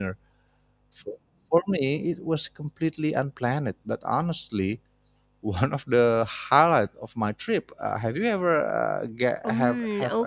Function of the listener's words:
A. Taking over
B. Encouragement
A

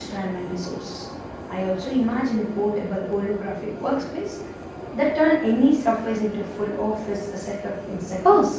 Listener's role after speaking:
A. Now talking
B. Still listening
A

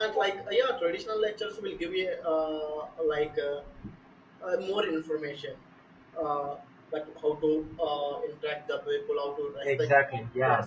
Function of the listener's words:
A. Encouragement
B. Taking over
A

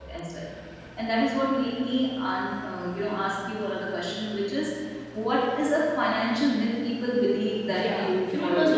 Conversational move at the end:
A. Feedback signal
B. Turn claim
B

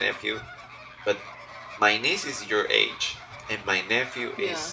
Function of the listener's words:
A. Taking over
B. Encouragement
B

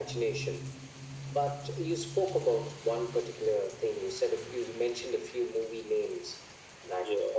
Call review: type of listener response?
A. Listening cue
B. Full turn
A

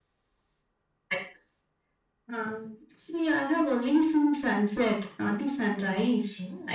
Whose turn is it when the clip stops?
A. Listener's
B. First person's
A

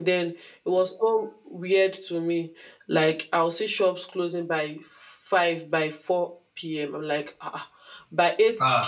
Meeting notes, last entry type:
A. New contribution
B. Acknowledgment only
B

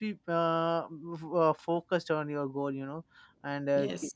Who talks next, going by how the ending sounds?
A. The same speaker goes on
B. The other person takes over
A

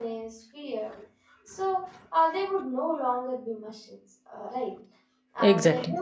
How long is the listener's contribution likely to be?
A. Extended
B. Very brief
B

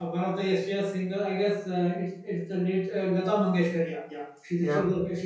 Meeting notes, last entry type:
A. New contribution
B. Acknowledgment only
B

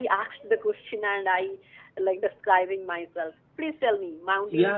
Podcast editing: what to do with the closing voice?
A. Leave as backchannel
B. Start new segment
B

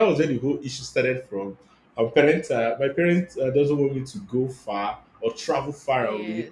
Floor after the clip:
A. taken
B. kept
B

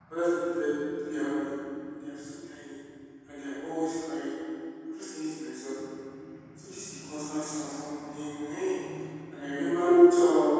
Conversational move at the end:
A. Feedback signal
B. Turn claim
A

